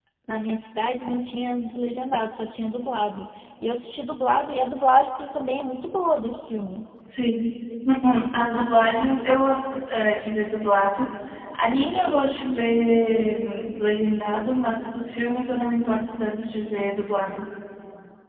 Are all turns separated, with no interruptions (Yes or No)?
Yes